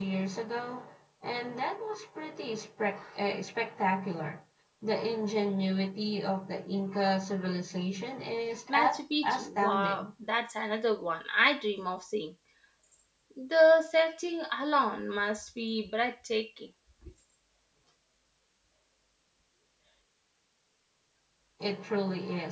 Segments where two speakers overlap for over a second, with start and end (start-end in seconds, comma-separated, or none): 8.7-10.1